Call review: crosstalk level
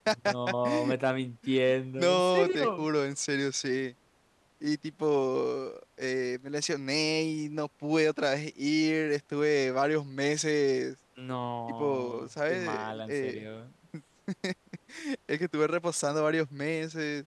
present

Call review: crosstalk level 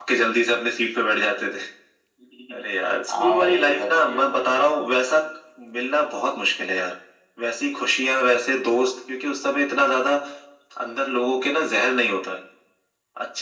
present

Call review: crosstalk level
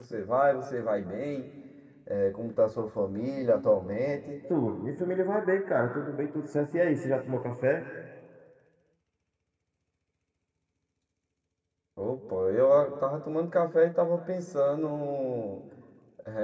none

